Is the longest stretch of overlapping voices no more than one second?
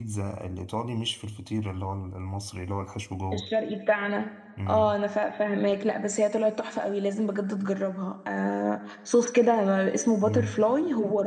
Yes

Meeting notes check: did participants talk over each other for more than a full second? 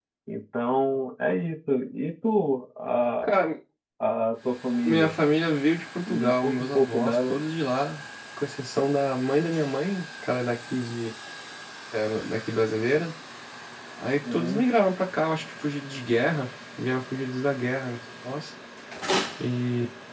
Yes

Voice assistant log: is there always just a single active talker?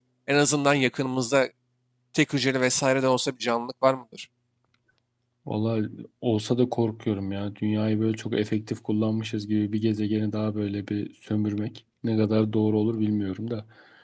Yes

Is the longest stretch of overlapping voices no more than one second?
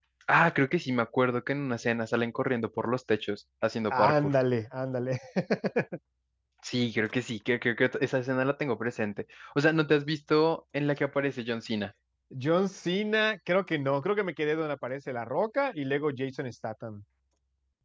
Yes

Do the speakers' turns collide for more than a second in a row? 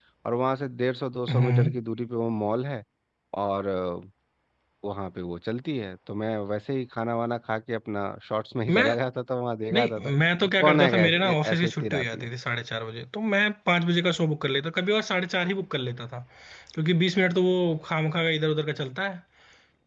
Yes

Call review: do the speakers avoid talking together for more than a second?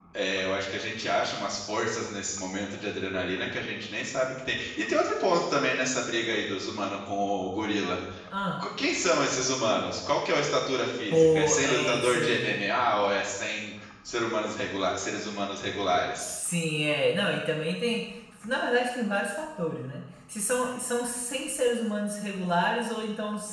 No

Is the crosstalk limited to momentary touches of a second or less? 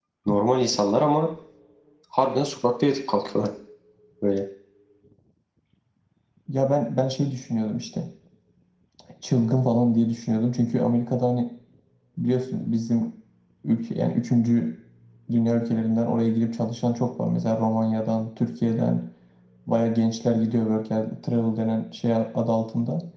Yes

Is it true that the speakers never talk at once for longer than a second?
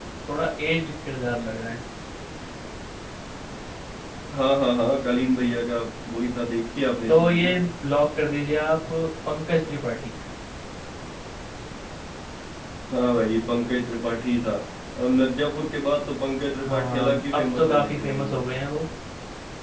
No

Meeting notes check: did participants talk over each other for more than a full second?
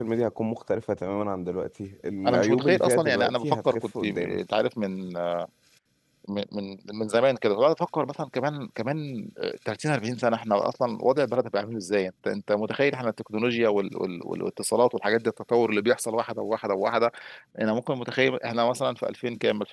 Yes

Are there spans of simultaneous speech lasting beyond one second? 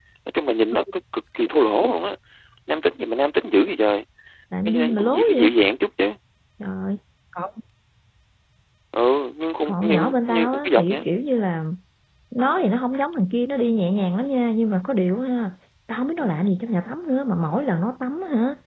Yes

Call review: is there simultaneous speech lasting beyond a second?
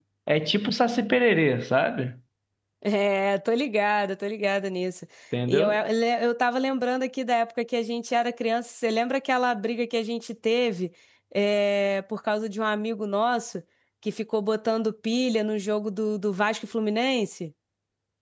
No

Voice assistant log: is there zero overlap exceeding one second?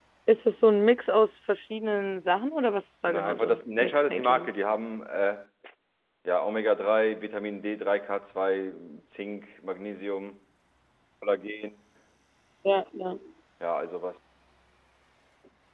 No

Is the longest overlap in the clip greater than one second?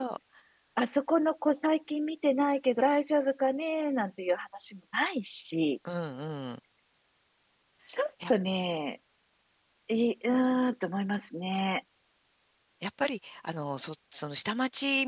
No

